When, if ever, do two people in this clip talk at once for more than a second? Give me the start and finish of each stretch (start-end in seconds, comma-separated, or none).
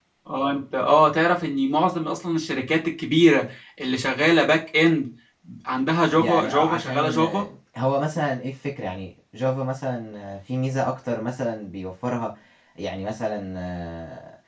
6.1-7.4